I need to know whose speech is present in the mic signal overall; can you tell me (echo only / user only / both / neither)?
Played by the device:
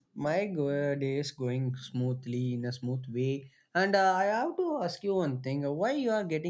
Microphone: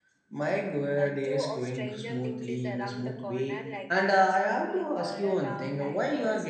both